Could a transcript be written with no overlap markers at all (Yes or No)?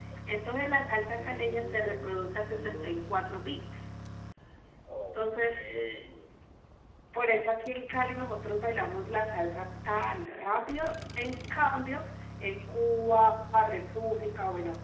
No